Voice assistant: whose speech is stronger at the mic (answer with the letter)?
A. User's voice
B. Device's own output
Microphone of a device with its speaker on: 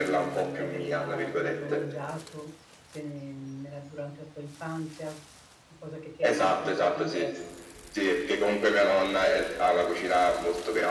B